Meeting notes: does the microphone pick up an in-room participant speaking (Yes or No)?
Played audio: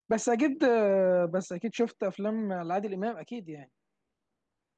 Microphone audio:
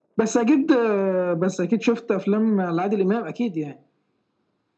No